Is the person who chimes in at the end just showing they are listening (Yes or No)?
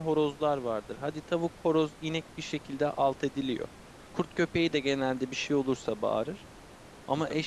Yes